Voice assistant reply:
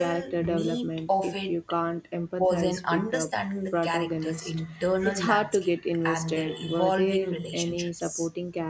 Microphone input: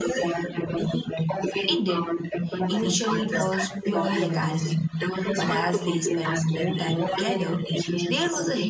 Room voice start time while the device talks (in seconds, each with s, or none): 1.7 s